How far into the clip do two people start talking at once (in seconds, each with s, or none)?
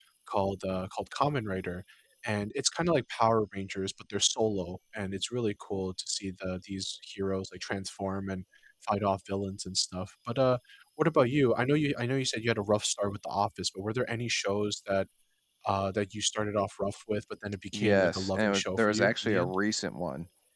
17.7 s